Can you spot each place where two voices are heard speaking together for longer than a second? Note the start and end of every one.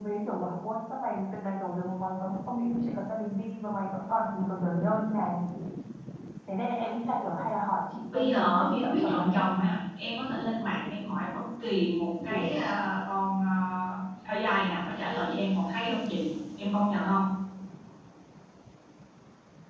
8.1-9.7

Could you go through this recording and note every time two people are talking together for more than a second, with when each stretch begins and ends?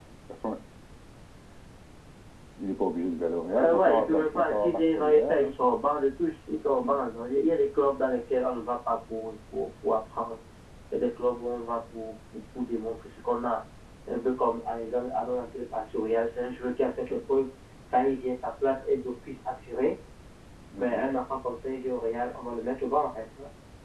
3.5-5.5

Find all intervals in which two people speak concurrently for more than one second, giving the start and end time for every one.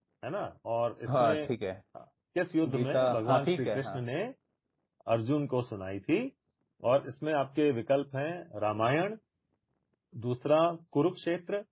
2.7-4.0

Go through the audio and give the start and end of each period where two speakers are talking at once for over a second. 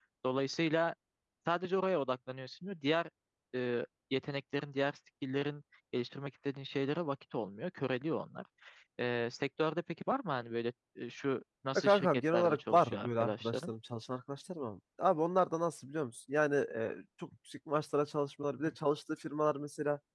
11.8-13.7

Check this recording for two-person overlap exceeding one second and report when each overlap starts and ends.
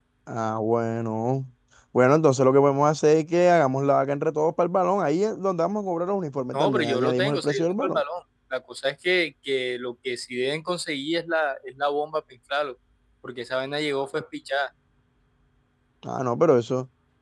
6.5-8.0

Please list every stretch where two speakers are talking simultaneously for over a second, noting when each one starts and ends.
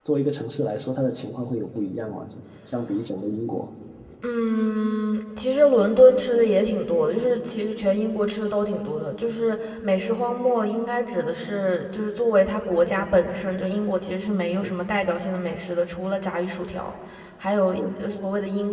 none

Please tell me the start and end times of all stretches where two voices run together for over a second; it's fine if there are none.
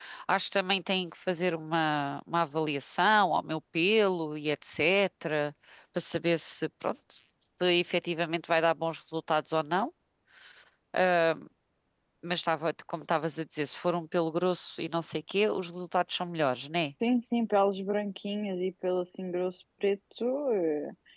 none

